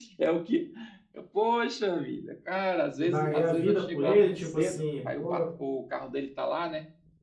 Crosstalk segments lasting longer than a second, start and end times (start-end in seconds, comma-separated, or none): 3.0-5.4